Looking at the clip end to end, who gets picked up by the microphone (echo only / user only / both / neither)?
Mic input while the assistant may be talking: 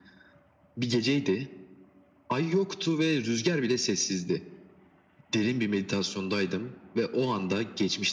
echo only